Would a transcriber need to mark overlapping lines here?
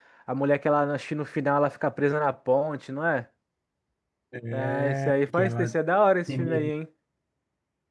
Yes, from 4.5 s

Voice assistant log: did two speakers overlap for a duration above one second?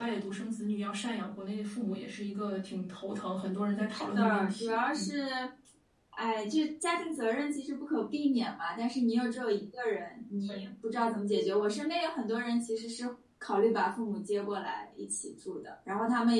Yes, from 3.9 s

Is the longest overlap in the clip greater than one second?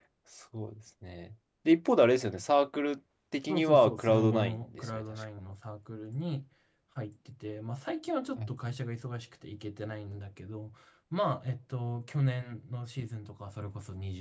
Yes, from 3.5 s

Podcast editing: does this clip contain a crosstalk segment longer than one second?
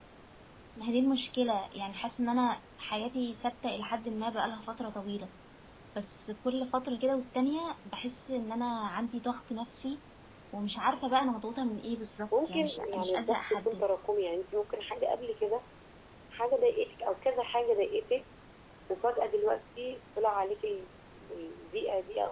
Yes, from 12.3 s

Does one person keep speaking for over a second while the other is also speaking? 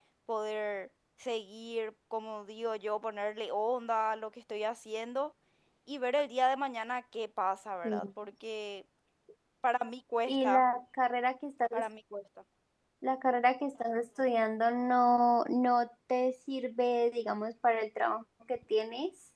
No

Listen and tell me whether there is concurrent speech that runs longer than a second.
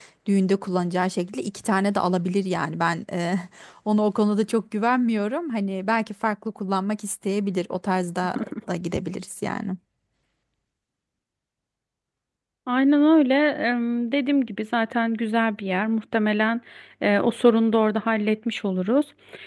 No

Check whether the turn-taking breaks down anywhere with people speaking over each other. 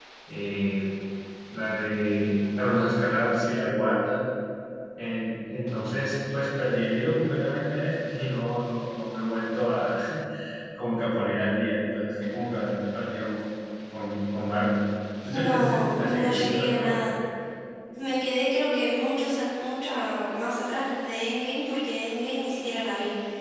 Yes, from 15.3 s

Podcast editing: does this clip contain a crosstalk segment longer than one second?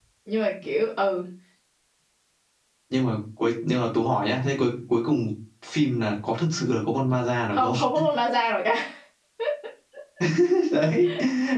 No

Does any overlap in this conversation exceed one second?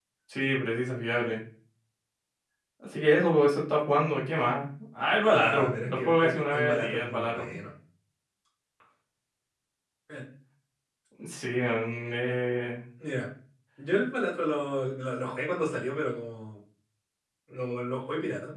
Yes, from 5.2 s

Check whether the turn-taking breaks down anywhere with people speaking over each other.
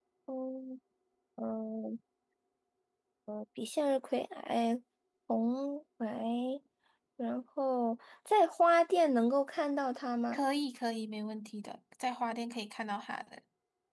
No

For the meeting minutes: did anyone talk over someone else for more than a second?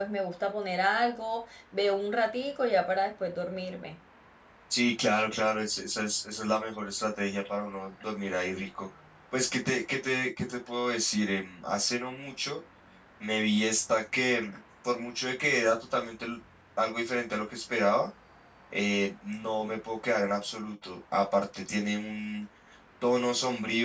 No

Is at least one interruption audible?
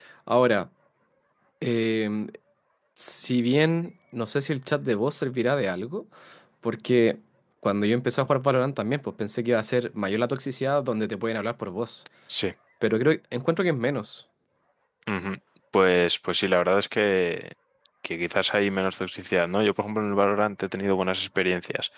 No

